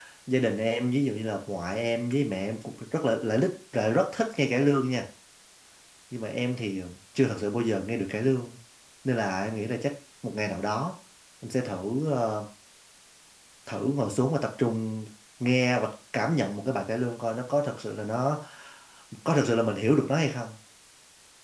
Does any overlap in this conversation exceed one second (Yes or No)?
No